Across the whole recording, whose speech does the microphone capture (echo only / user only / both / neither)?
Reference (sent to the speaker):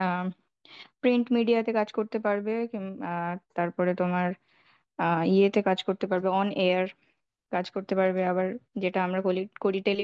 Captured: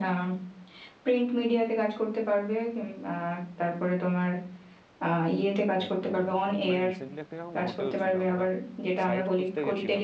both